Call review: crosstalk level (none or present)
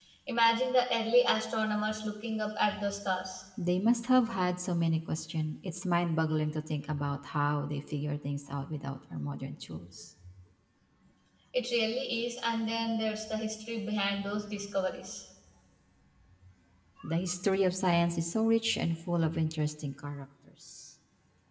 none